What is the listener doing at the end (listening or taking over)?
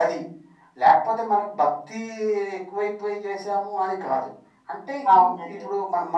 listening